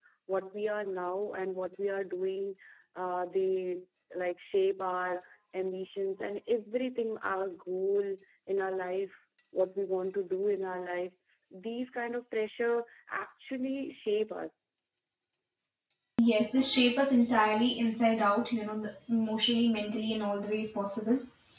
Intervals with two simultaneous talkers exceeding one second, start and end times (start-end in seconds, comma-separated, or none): none